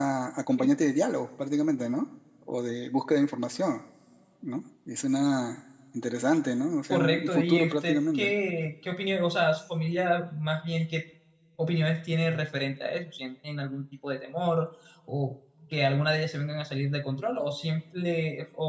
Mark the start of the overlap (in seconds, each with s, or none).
6.9 s